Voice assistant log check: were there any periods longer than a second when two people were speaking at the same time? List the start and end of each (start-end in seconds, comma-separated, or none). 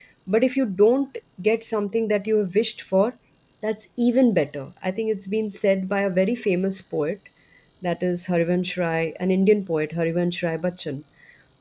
none